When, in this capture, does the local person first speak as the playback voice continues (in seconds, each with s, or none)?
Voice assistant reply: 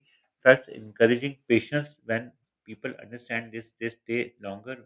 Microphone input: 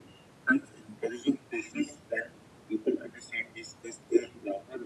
none